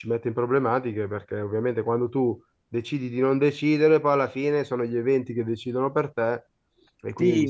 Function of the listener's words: taking over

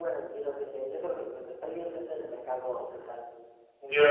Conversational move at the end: taking over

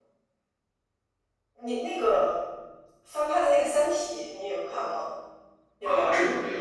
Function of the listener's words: taking over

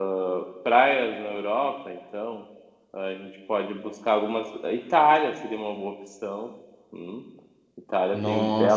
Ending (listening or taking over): taking over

